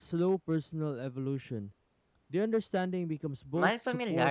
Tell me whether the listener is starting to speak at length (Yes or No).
Yes